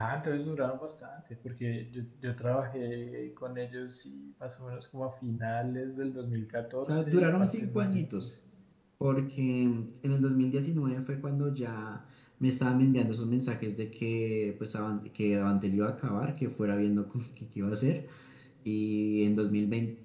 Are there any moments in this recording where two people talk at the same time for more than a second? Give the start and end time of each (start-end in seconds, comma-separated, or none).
6.9-8.3